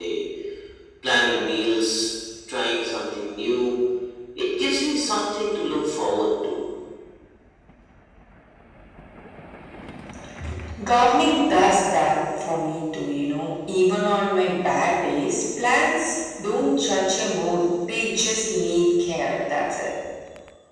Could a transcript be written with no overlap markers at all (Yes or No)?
Yes